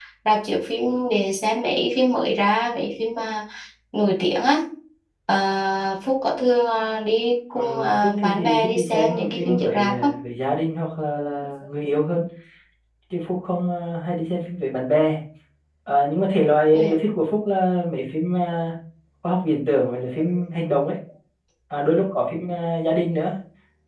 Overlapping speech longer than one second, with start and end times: 7.6-10.2

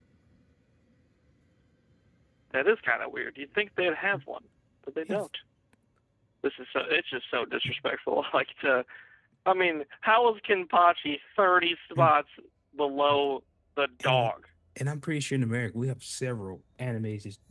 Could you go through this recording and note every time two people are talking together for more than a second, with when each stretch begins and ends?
none

